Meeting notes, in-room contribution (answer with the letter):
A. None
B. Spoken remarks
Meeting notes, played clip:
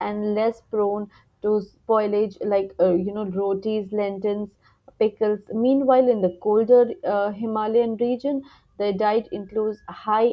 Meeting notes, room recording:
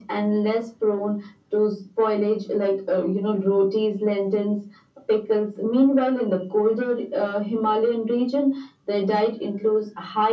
A